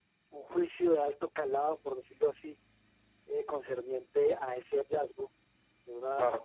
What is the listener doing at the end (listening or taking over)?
listening